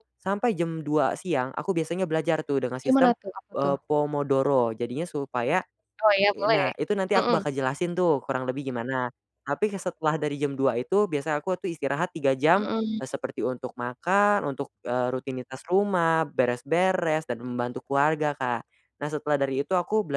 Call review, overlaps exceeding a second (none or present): none